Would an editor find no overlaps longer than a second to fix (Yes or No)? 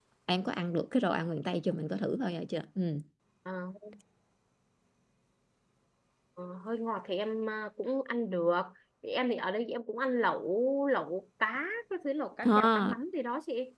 Yes